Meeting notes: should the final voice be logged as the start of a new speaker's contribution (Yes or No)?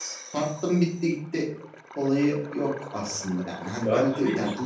Yes